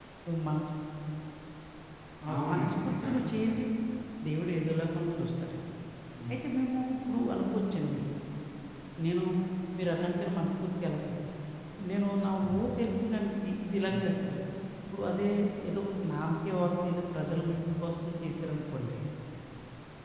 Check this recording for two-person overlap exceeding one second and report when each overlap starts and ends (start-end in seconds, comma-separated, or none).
2.3-3.6